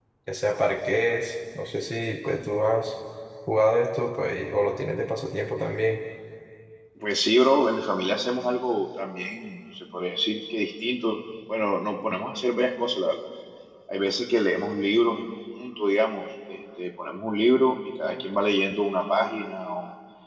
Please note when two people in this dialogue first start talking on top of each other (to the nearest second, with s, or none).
none